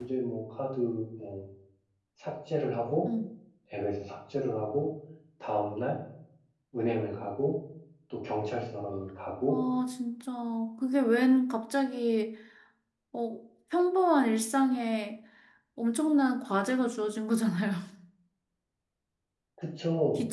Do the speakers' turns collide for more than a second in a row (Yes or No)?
No